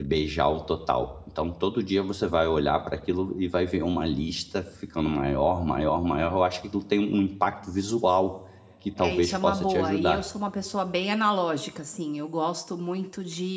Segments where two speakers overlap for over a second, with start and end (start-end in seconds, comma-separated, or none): 9.0-10.2